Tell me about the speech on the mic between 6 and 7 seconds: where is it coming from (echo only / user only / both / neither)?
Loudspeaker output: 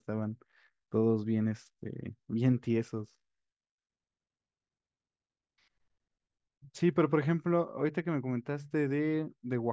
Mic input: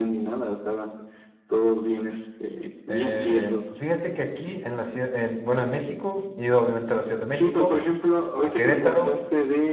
user only